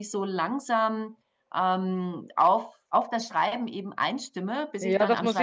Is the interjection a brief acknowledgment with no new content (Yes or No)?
No